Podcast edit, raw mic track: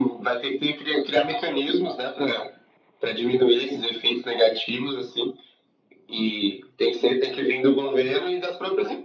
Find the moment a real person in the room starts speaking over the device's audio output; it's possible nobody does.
none

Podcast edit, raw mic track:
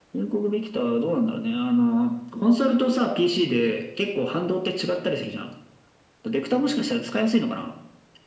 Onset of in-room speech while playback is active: none

